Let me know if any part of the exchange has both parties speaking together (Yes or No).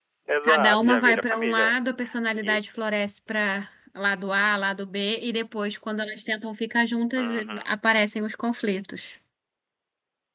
Yes